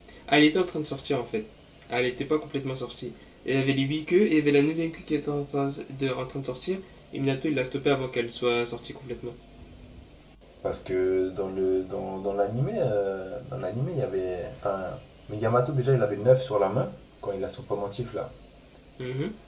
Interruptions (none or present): none